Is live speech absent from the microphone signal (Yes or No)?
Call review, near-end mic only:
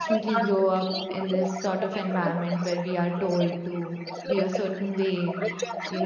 No